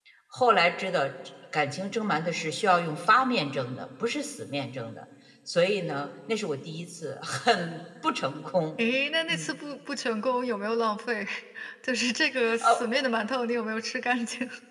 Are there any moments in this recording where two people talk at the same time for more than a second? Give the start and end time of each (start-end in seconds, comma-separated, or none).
none